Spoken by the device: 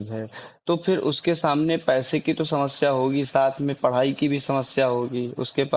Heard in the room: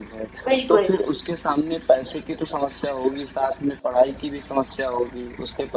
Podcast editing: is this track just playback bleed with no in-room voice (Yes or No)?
No